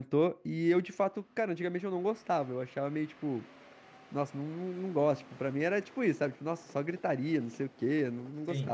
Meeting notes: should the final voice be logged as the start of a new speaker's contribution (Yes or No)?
No